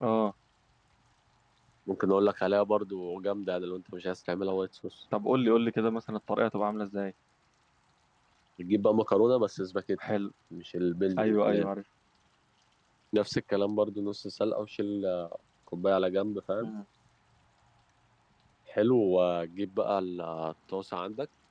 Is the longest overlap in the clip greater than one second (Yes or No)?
No